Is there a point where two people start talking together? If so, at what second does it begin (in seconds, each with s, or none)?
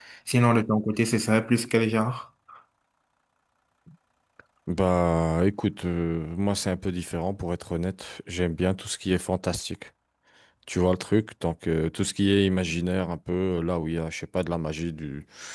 none